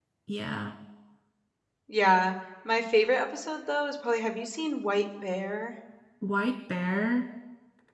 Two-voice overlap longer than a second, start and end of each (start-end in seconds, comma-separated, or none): none